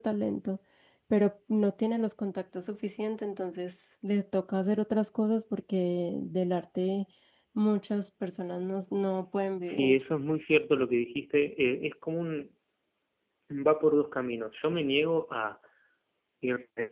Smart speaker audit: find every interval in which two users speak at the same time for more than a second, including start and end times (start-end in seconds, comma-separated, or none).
none